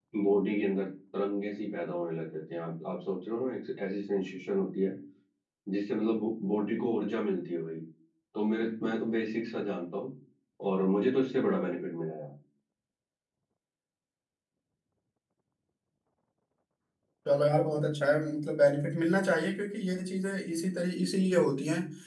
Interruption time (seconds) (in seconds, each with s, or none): none